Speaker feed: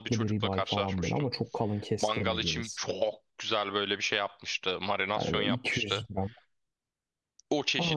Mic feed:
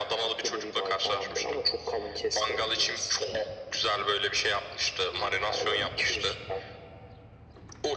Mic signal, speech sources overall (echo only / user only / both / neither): echo only